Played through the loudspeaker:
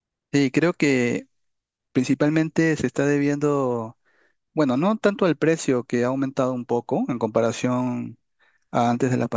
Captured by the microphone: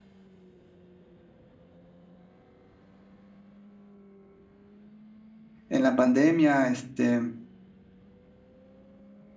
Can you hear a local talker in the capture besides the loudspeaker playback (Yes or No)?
Yes